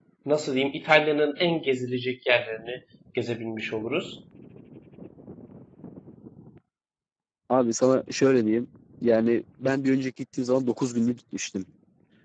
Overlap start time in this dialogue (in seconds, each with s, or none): none